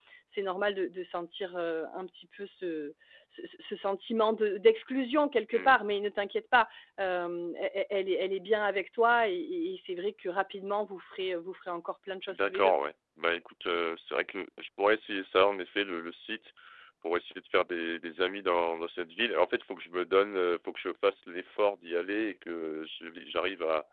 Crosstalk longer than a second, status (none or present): none